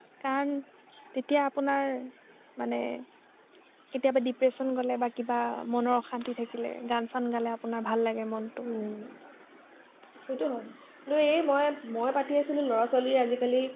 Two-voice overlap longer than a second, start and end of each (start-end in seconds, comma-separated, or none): none